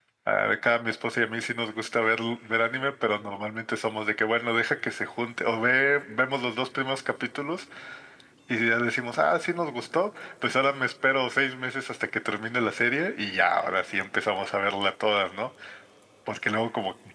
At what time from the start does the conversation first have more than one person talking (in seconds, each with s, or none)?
none